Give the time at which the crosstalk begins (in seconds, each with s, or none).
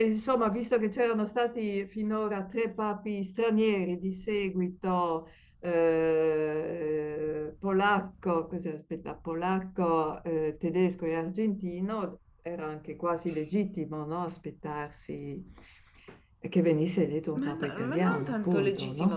17.4 s